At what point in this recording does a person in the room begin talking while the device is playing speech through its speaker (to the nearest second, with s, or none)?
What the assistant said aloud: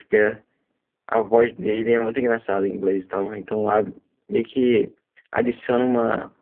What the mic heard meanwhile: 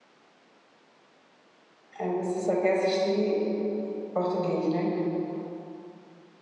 2 s